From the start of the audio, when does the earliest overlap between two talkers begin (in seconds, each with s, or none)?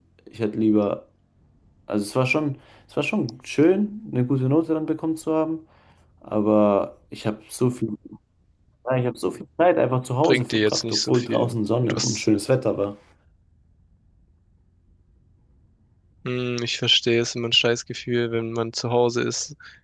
10.2 s